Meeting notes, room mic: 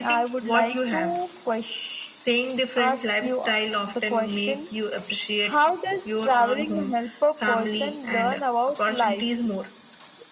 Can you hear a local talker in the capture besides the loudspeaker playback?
No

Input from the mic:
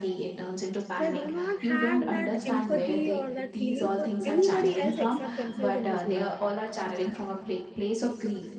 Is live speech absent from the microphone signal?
No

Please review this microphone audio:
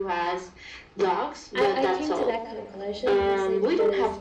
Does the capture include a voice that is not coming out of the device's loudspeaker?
Yes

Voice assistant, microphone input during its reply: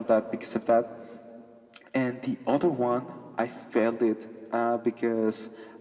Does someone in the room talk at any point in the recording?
No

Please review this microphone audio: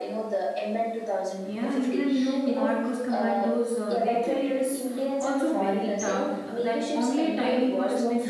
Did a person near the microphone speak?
Yes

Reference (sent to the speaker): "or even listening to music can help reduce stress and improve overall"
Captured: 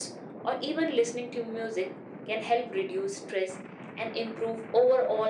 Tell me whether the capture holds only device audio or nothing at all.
Yes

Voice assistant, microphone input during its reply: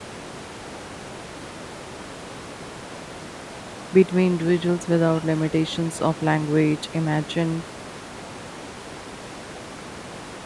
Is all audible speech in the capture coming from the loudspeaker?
No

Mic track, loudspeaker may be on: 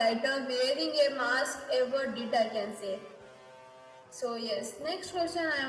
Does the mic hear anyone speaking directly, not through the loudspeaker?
No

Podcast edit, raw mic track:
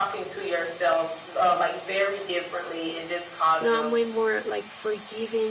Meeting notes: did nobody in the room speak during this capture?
No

